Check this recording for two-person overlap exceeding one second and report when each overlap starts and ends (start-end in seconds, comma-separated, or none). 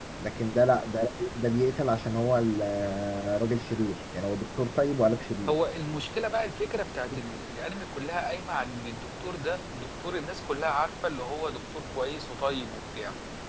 none